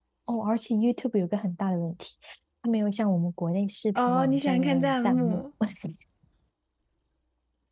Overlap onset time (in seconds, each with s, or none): 4.0 s